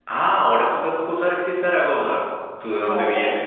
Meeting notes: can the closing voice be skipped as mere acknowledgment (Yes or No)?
Yes